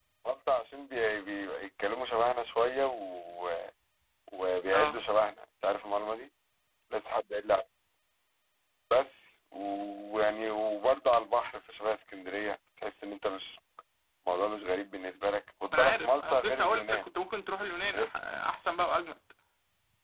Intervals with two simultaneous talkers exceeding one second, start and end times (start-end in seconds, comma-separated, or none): 15.7-17.0